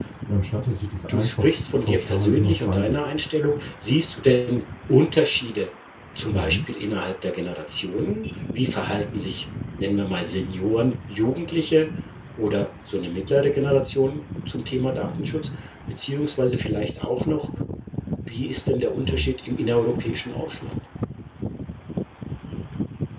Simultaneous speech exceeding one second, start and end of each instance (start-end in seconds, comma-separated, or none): 1.1-3.0